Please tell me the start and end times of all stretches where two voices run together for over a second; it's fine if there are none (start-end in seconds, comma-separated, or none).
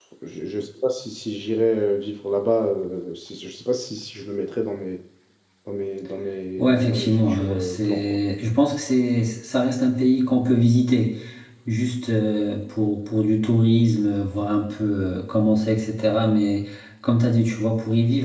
6.6-8.2